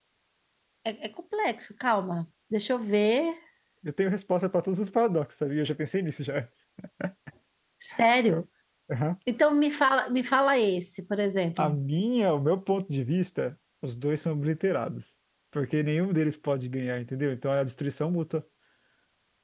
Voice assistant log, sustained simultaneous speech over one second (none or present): none